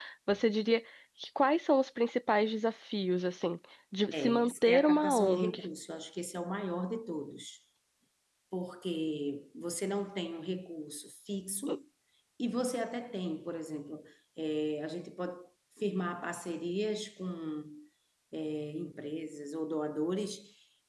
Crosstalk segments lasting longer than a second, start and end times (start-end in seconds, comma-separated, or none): 4.1-5.7